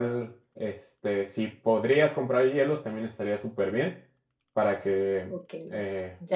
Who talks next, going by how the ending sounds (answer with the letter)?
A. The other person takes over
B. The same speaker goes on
A